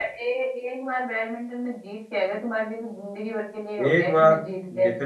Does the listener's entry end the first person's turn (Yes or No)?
Yes